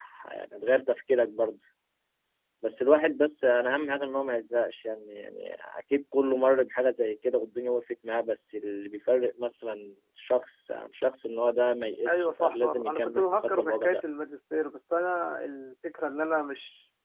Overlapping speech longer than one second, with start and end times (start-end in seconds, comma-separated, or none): 12.1-14.0